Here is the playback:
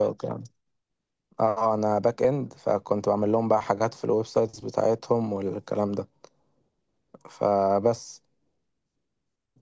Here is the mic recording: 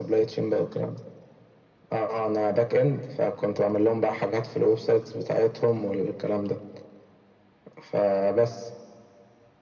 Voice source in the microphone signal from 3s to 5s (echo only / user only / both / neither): echo only